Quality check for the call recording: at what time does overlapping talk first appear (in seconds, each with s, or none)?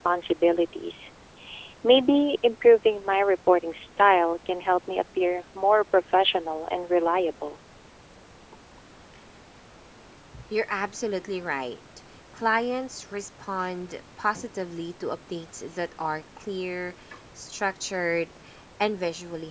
none